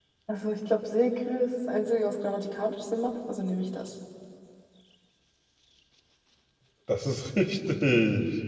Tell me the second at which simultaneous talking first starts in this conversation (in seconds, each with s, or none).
none